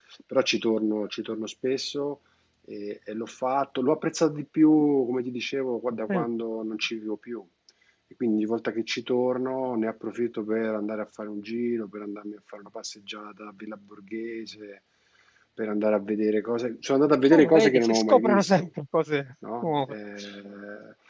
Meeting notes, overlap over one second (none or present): present